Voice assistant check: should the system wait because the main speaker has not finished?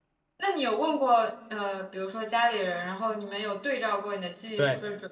No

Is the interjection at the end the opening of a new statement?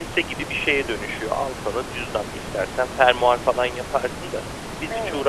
No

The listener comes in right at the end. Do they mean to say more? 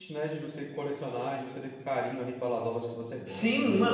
Yes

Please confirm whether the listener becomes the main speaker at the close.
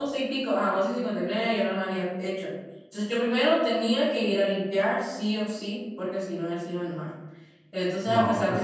No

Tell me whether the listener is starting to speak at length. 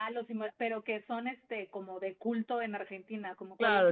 Yes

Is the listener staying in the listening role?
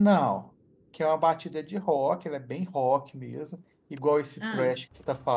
Yes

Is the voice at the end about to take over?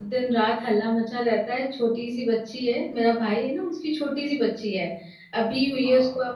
No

